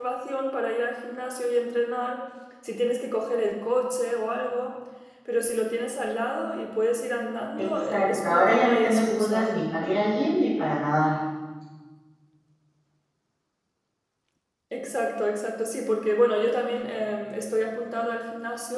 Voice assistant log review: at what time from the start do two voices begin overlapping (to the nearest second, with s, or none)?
8 s